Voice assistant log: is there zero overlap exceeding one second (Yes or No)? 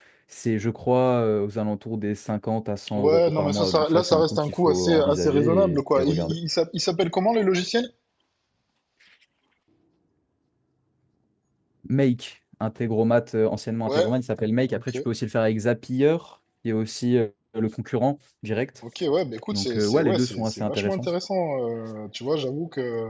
No